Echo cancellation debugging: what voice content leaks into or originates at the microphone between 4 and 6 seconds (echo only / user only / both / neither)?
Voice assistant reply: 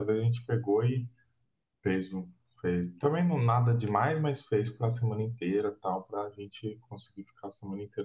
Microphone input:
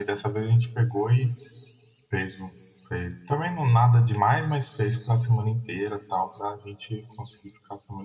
echo only